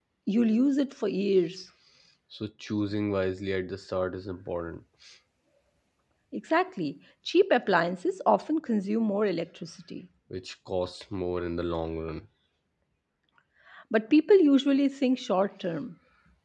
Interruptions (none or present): none